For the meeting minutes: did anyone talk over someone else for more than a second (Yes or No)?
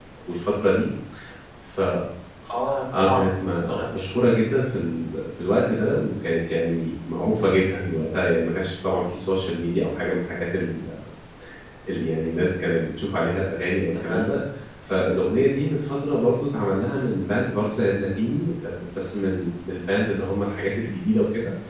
Yes